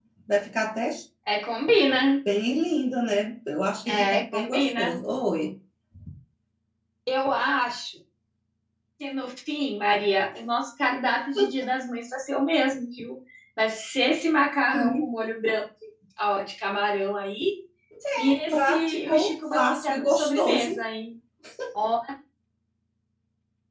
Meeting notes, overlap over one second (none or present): present